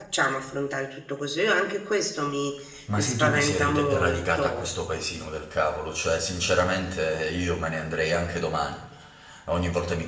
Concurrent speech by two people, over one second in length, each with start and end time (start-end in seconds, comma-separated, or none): 3.0-4.7